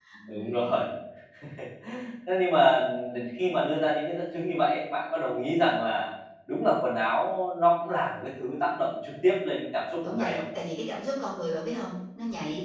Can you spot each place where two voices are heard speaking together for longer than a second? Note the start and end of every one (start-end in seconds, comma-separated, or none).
none